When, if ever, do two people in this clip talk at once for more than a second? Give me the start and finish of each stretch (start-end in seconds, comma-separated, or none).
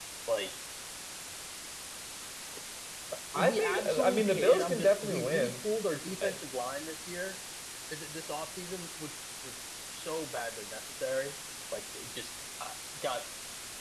3.4-5.5